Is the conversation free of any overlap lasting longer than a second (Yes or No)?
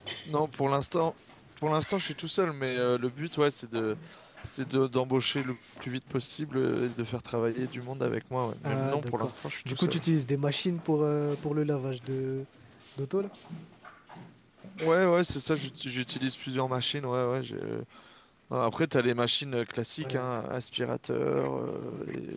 No